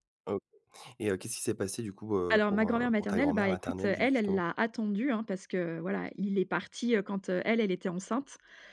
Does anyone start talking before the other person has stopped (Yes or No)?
Yes